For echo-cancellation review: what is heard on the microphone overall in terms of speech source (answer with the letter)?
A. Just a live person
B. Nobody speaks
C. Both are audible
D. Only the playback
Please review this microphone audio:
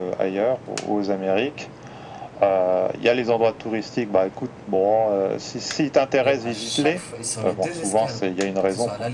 C